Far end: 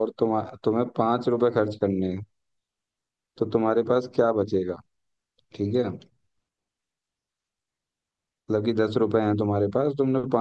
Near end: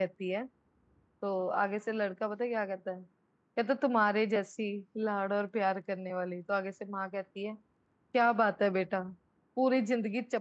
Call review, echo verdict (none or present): none